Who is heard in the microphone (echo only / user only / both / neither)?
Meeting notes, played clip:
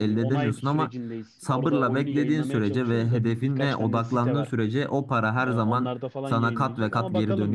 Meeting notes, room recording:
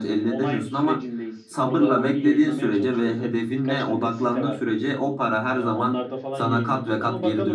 echo only